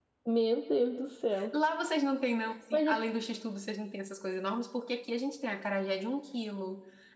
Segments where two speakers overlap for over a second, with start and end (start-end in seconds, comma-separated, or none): none